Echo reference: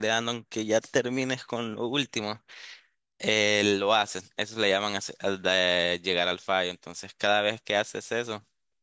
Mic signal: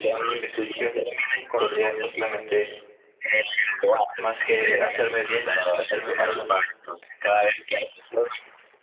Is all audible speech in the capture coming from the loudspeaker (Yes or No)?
No